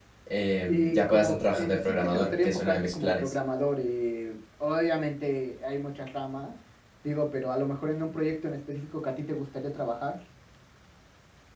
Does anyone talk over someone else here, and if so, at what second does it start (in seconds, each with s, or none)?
0.7 s